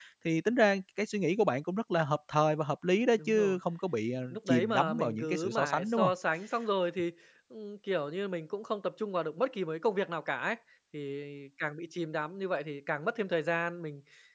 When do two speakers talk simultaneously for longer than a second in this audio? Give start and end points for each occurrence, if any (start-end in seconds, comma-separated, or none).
4.3-6.1